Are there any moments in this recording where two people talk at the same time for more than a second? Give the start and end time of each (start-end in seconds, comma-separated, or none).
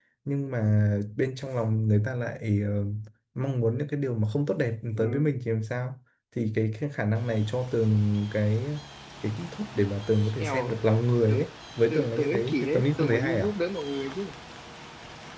11.9-13.5